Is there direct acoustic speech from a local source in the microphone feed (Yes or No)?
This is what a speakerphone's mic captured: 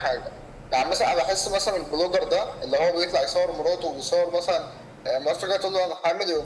No